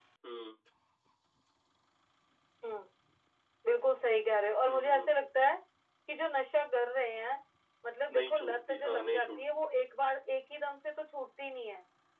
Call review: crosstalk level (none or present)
present